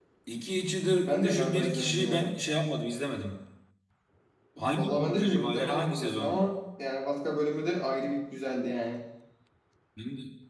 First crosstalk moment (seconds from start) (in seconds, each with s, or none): 1.1 s